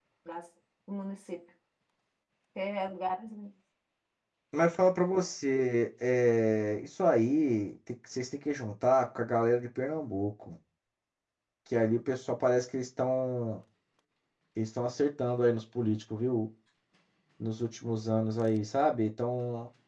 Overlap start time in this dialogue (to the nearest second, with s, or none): none